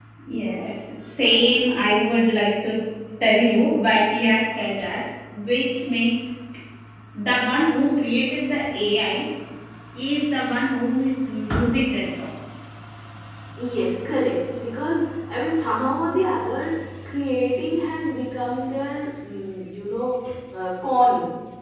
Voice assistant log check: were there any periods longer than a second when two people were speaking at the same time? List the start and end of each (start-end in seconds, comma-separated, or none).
none